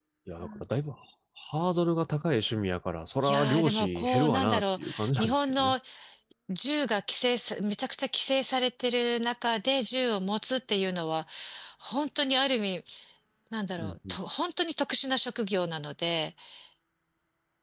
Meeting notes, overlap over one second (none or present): present